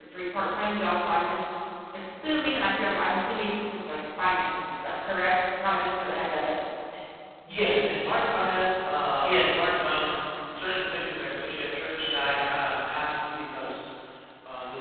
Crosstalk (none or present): none